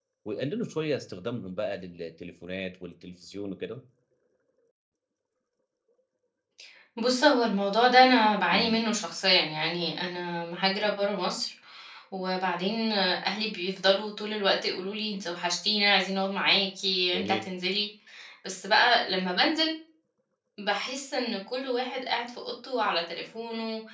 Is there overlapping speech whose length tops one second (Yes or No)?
No